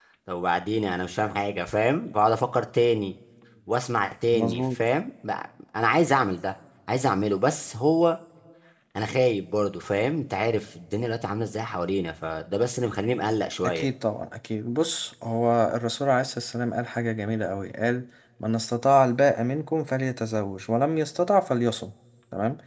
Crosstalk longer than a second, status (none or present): none